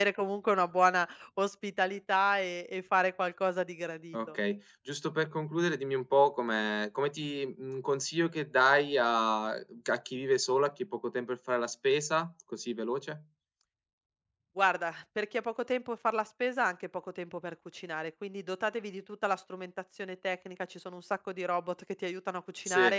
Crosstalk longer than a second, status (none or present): none